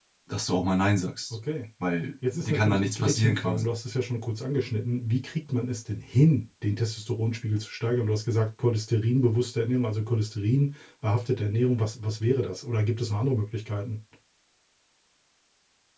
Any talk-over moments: Yes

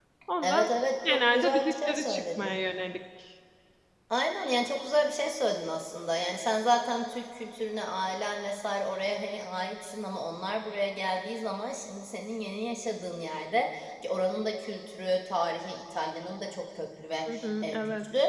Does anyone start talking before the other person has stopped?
Yes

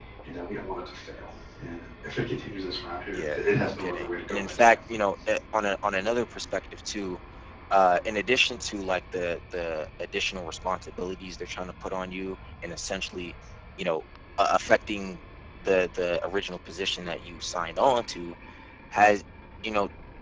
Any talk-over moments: Yes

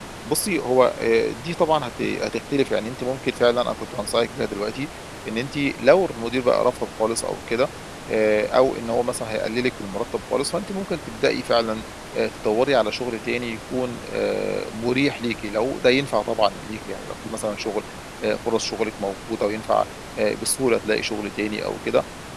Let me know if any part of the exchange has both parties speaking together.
No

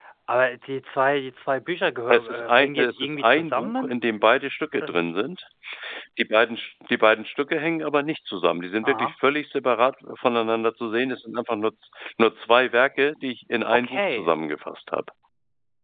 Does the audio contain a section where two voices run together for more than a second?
Yes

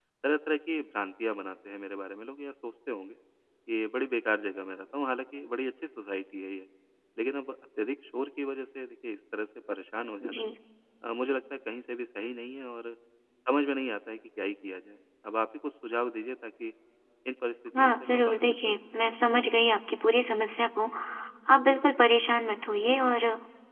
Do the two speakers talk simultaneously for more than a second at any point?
Yes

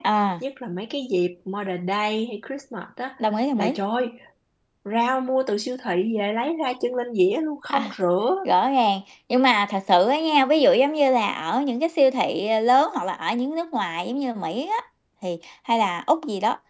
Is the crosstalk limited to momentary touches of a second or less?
Yes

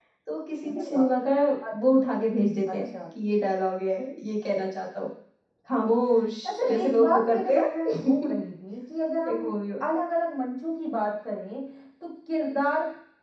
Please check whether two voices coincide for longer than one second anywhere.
Yes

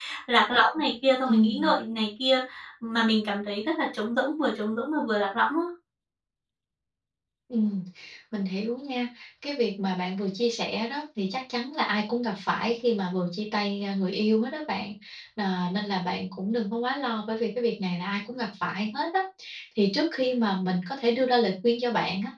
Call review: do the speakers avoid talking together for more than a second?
Yes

